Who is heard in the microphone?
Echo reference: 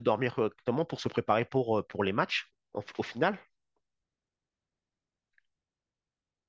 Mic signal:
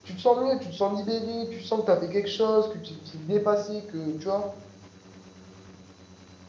user only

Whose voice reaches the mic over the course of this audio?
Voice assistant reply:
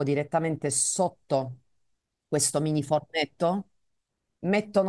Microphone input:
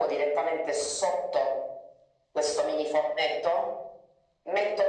echo only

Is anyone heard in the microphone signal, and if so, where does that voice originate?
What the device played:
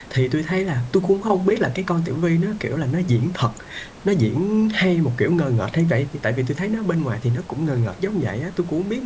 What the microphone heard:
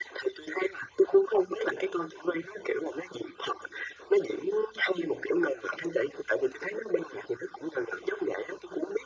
echo only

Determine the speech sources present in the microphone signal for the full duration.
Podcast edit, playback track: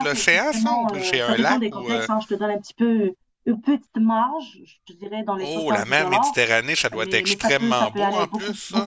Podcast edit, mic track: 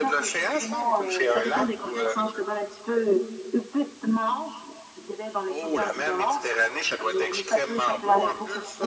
echo only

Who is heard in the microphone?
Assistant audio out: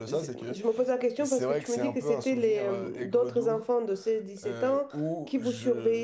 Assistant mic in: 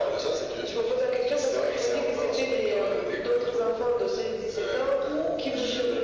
echo only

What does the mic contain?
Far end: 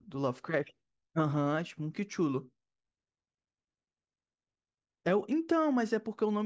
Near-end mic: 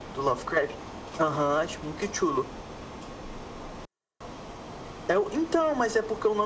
echo only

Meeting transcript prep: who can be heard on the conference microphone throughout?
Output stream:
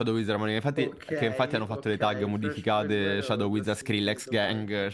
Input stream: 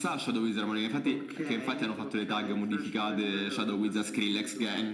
echo only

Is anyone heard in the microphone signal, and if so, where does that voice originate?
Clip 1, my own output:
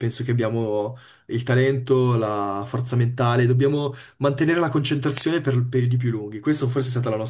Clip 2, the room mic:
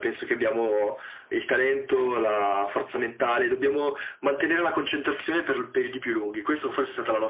echo only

